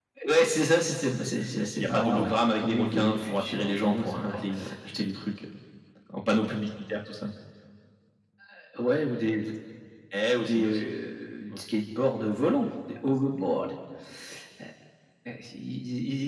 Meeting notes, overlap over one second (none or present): present